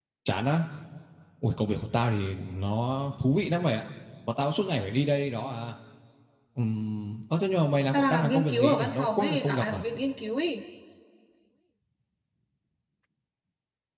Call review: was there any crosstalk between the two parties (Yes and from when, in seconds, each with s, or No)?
Yes, from 7.9 s